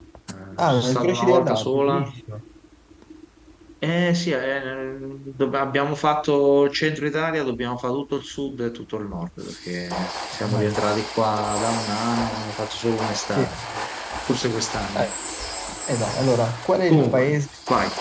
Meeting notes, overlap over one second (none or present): present